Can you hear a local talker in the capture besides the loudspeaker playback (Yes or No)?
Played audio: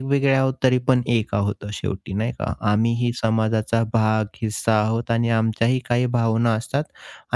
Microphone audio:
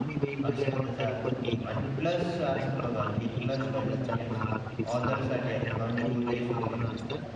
Yes